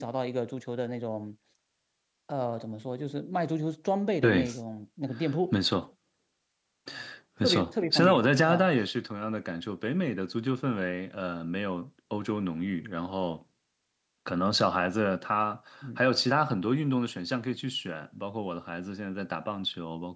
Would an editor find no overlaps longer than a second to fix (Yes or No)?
No